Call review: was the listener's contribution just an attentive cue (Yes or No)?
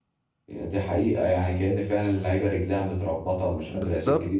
No